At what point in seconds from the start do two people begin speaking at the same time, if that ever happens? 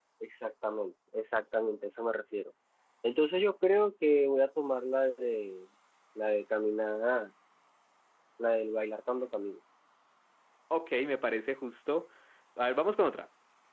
none

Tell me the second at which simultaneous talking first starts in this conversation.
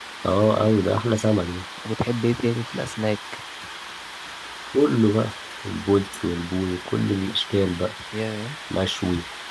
none

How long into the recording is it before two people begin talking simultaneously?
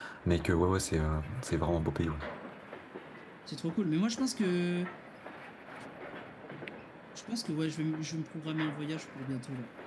none

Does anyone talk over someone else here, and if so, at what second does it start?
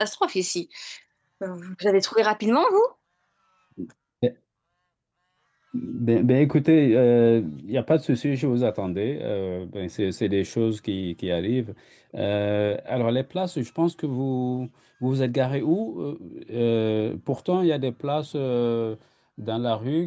none

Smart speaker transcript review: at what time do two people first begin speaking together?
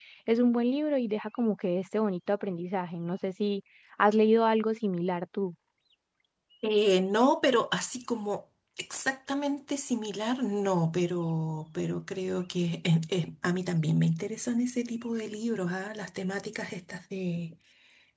none

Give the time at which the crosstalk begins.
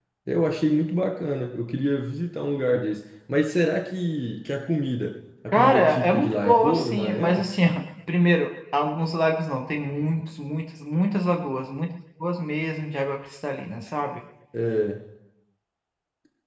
5.5 s

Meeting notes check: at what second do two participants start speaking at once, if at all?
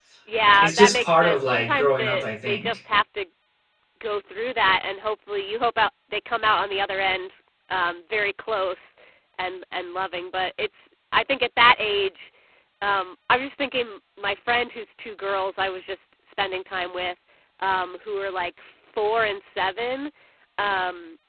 0.6 s

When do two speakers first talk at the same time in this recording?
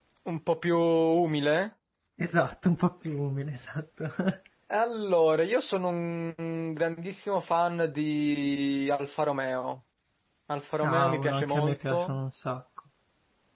10.8 s

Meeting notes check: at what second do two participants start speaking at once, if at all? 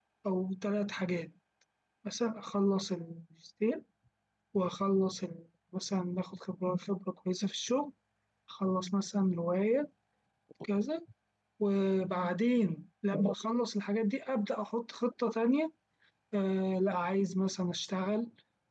none

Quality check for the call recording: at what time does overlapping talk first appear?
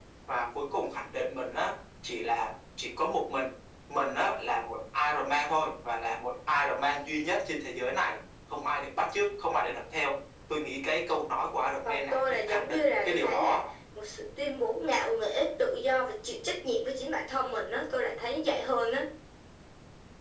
11.8 s

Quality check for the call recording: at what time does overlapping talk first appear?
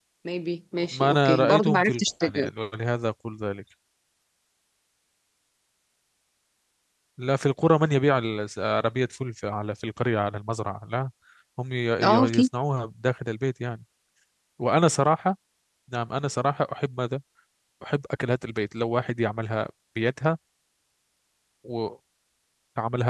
0.9 s

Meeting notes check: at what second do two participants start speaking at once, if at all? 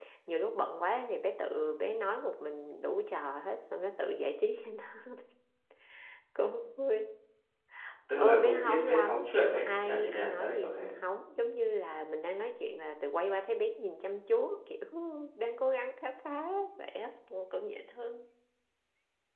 8.2 s

